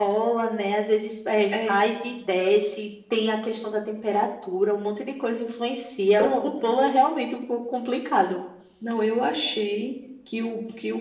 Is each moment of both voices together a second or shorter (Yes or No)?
Yes